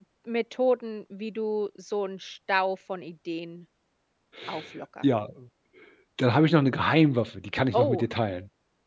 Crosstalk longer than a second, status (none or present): none